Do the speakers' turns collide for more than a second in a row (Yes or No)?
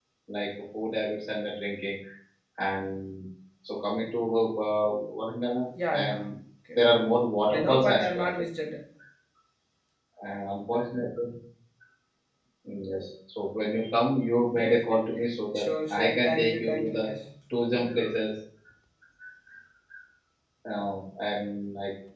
Yes